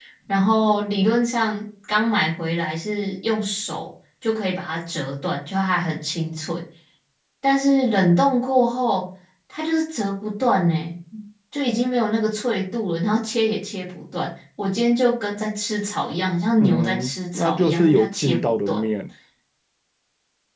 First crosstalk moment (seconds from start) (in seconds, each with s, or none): 16.6 s